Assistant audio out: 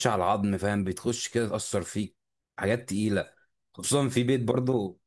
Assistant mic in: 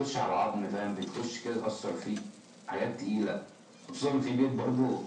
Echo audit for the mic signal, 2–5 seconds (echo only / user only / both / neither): echo only